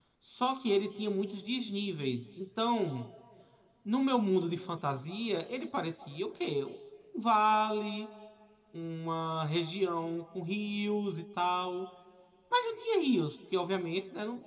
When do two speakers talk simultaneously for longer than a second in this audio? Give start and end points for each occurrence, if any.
none

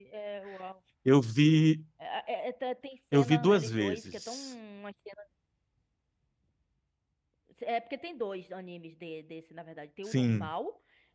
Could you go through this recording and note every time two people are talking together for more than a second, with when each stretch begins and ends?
3.1-4.5

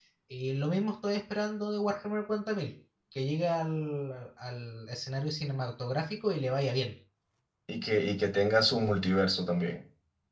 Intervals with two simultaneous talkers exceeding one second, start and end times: none

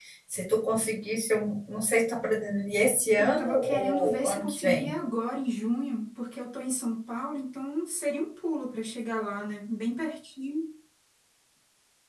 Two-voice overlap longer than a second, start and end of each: 3.2-4.9

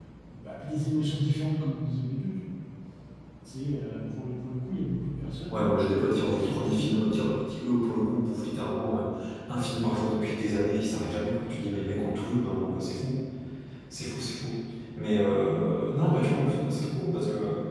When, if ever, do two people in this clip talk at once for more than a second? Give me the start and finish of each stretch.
5.5-7.1

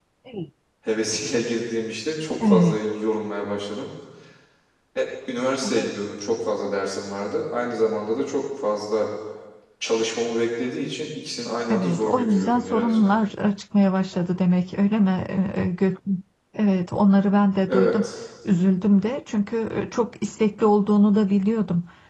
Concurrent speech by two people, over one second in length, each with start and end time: 11.7-13.0

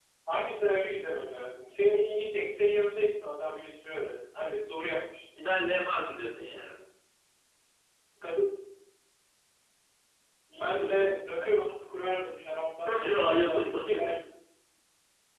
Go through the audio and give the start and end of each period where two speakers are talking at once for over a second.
12.8-14.2

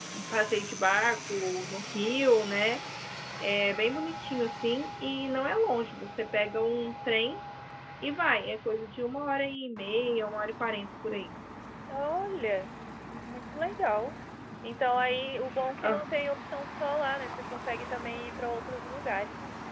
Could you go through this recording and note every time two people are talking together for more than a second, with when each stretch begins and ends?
none

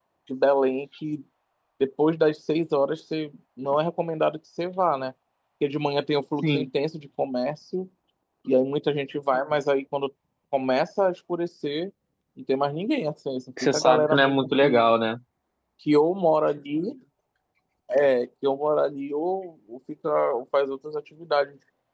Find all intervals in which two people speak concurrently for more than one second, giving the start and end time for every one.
13.6-14.9

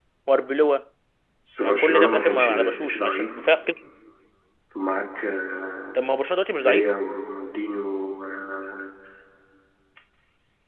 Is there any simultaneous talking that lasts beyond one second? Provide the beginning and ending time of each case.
1.6-3.5

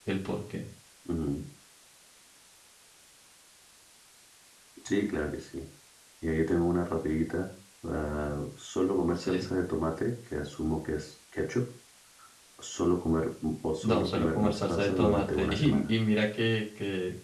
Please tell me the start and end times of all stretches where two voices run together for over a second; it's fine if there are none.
13.8-15.8

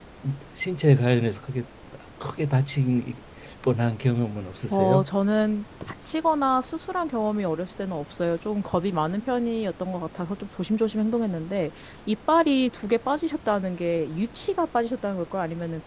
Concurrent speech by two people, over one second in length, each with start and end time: none

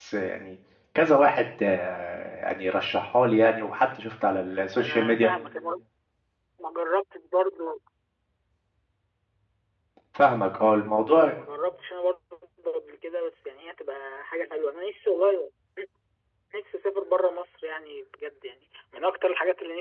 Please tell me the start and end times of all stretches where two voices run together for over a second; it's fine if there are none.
none

